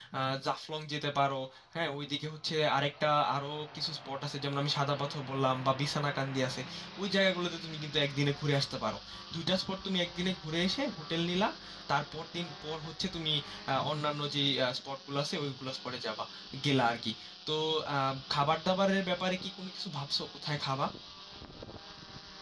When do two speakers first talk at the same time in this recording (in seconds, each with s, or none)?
none